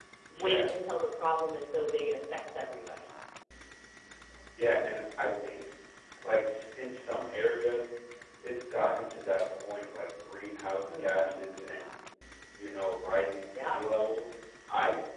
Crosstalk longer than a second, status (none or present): none